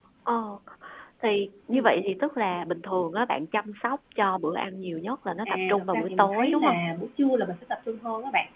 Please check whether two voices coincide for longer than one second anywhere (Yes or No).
Yes